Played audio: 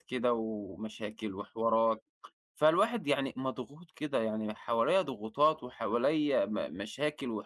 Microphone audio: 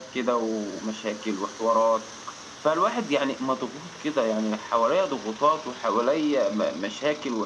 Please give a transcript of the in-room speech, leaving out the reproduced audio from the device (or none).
none